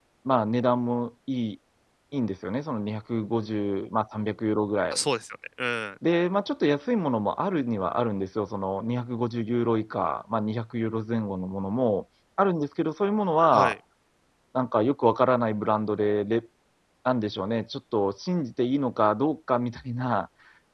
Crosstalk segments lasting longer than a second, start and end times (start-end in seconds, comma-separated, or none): none